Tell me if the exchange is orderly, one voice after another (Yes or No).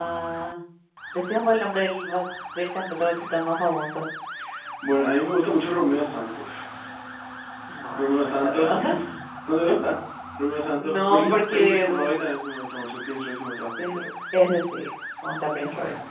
No